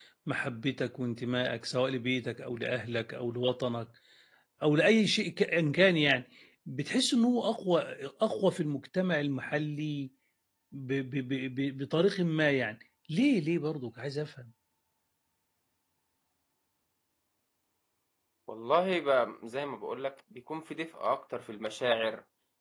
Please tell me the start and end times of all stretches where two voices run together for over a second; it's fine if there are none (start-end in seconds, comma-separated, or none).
none